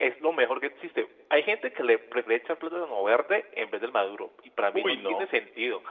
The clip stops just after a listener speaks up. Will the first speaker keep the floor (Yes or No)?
Yes